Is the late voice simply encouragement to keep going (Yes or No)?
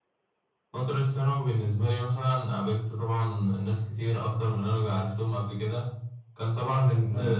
Yes